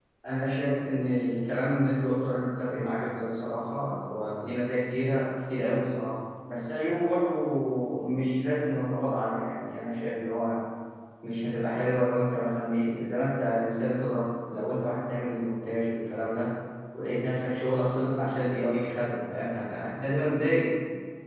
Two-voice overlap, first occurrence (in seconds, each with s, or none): none